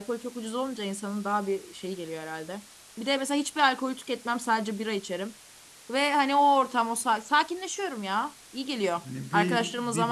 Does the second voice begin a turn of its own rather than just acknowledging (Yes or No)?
Yes